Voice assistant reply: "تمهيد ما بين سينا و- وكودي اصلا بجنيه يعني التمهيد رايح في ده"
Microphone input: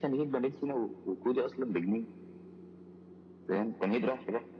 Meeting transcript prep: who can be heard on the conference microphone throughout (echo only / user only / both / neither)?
echo only